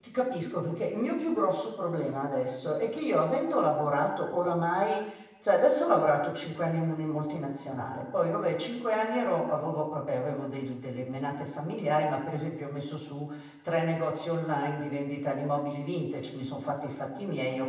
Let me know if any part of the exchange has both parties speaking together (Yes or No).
No